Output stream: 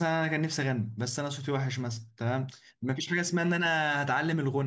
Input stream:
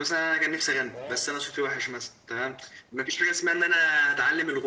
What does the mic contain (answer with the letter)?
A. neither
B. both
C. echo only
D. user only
B